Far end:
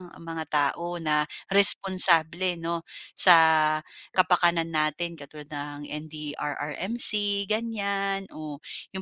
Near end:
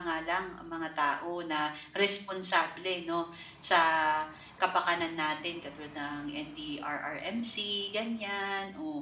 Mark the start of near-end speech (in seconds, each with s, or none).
none